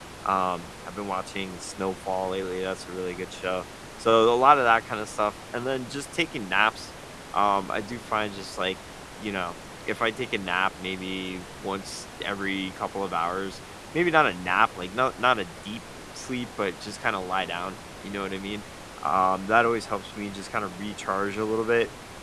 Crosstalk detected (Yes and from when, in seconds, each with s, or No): No